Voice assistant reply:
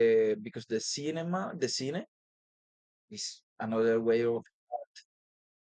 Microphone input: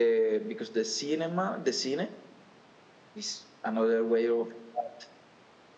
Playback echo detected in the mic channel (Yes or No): Yes